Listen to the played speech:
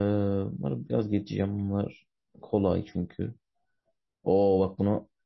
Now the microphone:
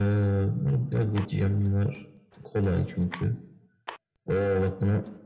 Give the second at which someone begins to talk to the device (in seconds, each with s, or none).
none